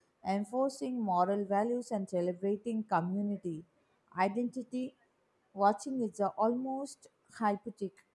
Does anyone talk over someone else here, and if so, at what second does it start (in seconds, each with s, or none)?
none